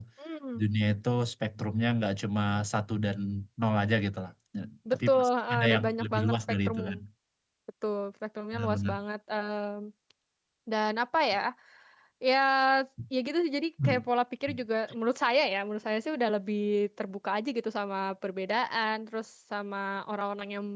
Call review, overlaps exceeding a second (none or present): present